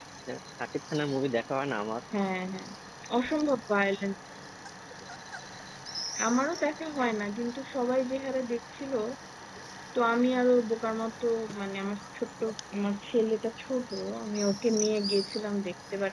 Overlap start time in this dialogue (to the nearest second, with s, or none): none